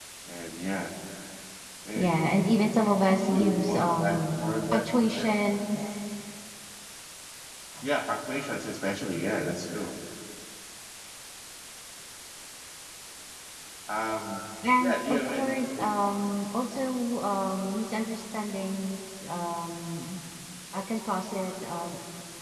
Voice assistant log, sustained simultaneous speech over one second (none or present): present